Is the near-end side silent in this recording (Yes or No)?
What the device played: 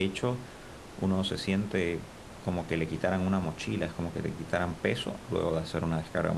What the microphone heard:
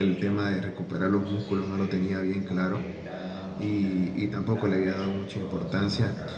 No